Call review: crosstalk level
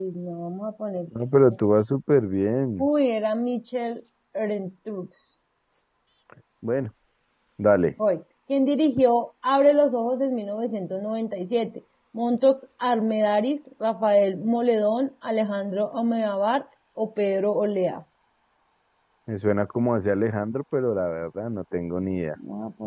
none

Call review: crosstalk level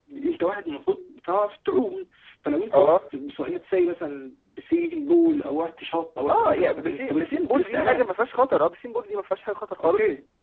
present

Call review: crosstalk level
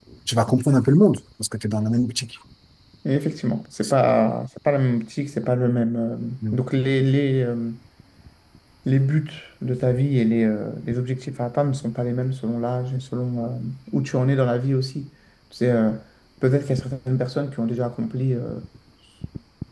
none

